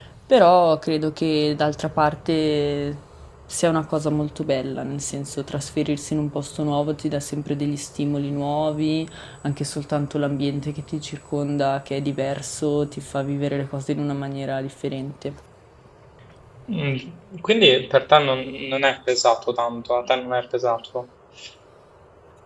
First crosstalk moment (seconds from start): none

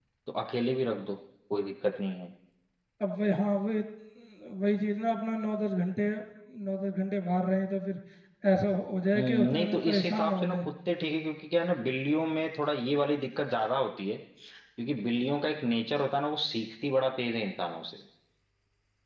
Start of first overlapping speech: 9.2 s

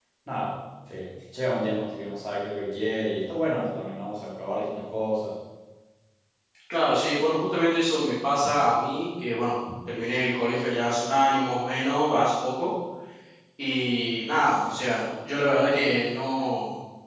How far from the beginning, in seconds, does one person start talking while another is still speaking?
none

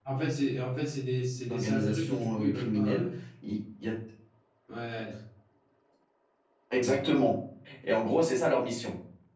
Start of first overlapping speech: 1.5 s

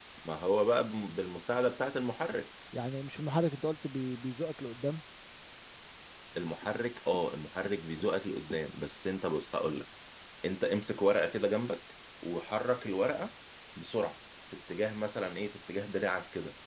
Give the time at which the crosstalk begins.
none

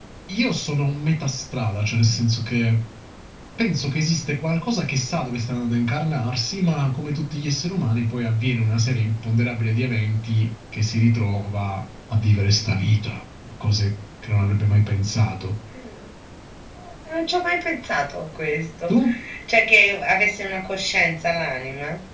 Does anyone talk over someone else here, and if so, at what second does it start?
none

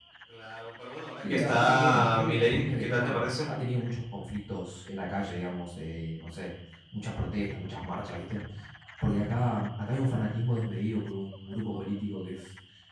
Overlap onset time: 1.3 s

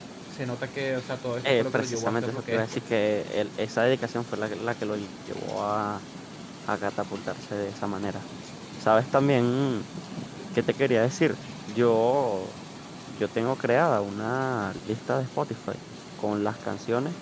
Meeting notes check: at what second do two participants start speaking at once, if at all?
1.4 s

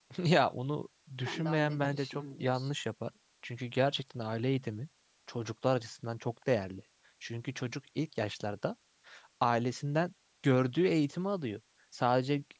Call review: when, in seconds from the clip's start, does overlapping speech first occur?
1.3 s

